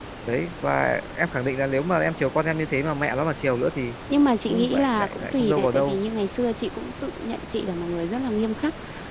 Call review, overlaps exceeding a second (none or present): present